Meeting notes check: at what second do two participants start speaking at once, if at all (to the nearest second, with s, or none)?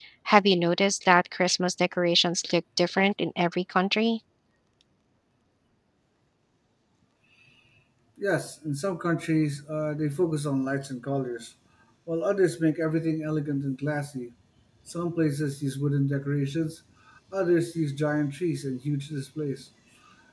none